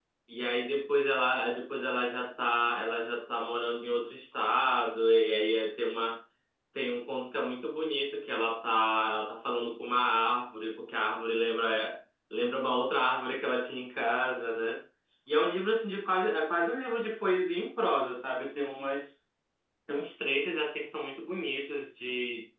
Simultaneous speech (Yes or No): No